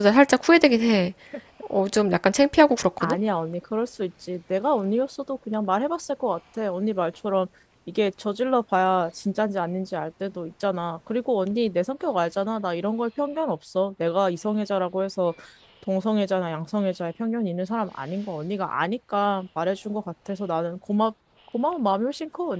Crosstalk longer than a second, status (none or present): none